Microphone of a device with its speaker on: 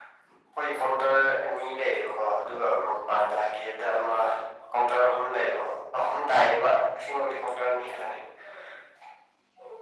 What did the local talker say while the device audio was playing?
none

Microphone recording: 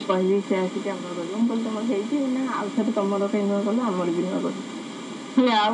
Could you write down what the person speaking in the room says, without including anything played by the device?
none

